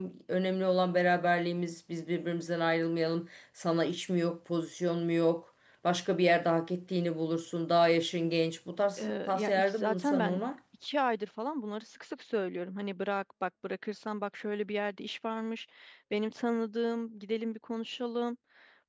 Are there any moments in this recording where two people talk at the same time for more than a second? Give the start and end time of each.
9.0-10.4

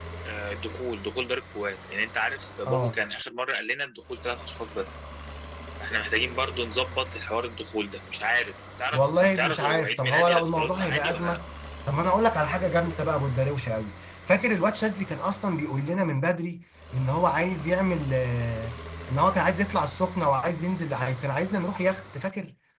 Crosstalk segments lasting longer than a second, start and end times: 8.9-11.4

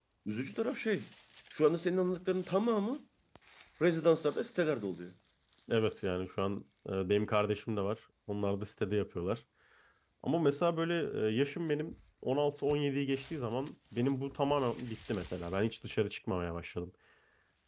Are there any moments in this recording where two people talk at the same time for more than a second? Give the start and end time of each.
none

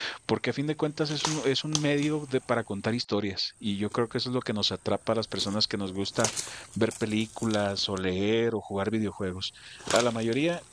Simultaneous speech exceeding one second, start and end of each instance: none

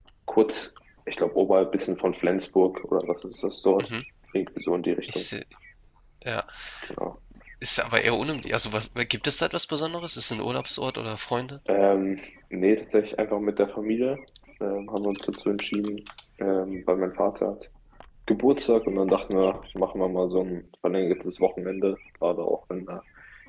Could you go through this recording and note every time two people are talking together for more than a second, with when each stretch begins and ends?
none

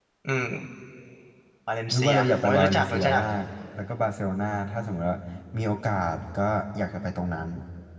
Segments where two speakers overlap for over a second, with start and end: 1.9-3.2

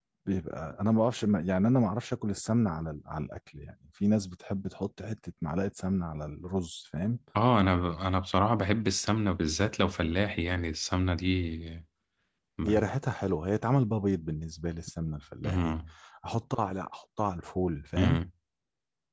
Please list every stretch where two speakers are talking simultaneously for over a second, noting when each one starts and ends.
none

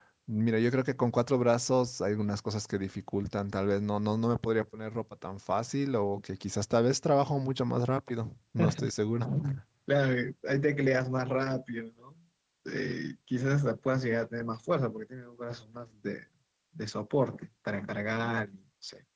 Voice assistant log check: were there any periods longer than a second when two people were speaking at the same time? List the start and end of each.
none

